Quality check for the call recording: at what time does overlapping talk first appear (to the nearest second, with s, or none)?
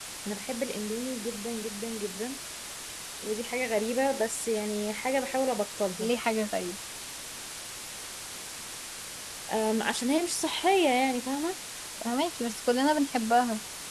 none